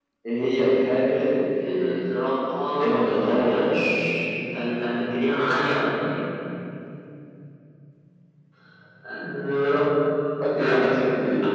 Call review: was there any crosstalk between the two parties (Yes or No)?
Yes